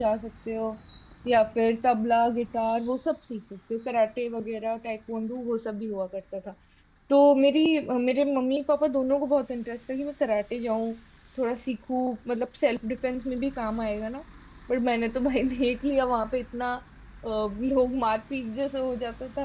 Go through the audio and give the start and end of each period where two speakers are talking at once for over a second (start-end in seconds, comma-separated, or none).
none